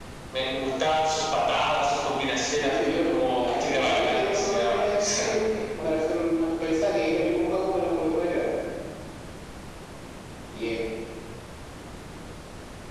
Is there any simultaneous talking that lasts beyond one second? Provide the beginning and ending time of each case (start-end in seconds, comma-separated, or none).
2.5-5.3